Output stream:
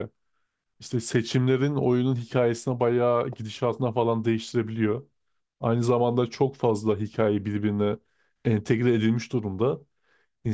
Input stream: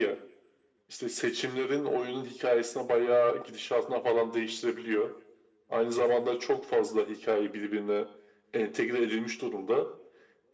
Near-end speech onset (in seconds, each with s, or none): none